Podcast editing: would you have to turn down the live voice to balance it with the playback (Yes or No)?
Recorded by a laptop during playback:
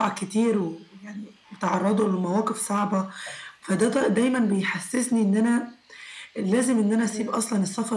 No